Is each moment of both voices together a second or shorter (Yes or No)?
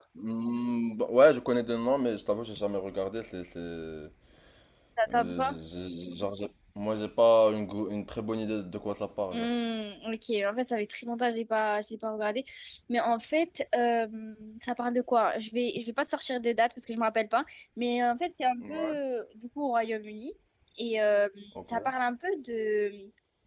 Yes